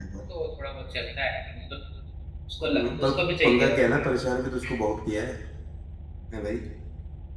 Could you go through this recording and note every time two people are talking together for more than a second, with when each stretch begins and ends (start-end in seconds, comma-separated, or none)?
2.7-4.1